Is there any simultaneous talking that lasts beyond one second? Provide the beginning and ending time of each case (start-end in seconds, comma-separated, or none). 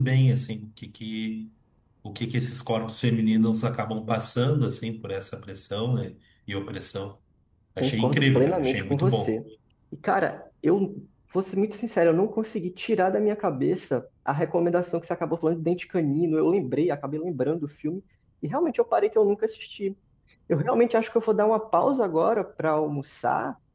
7.8-9.4